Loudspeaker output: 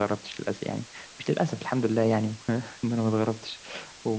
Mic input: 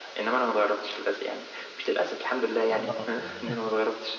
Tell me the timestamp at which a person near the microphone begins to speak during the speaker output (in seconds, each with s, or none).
2.8 s